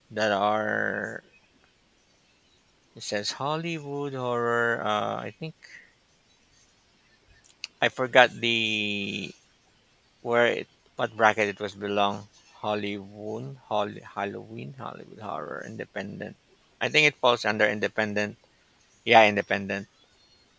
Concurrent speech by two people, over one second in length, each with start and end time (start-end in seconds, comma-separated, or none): none